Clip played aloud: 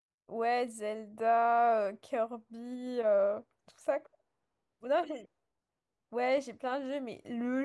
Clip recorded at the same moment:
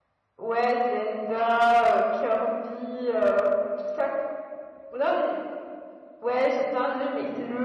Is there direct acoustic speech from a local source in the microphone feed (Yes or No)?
No